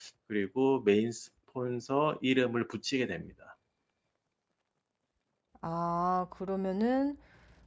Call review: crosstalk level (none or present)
none